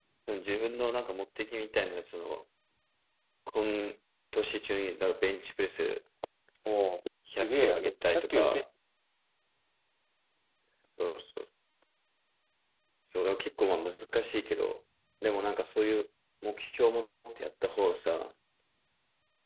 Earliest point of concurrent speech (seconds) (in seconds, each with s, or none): 7.4 s